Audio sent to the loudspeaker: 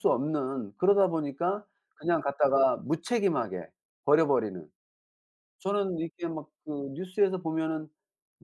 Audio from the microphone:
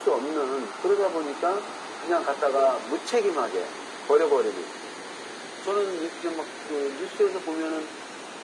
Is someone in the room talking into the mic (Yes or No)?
No